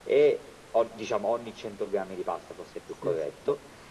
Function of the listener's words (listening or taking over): listening